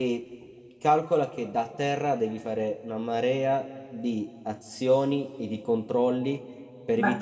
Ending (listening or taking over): taking over